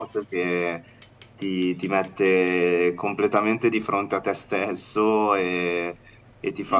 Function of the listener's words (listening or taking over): listening